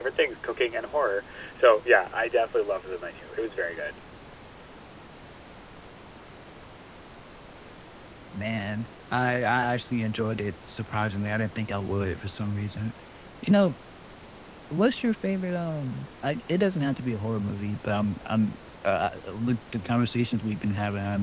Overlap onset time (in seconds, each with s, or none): none